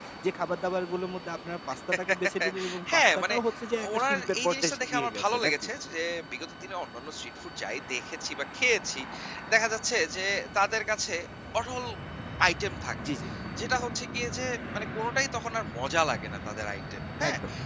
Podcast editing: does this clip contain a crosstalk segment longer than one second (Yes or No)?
Yes